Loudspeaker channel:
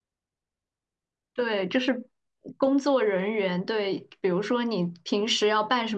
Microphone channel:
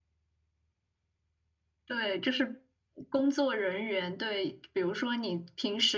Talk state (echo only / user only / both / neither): echo only